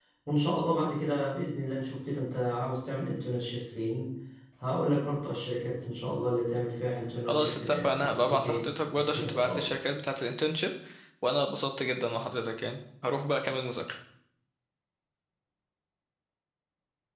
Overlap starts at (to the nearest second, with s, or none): 7 s